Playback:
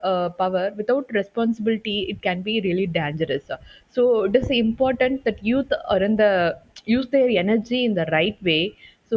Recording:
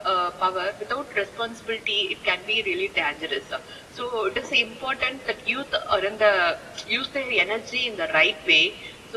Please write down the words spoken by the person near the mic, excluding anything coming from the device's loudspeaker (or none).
none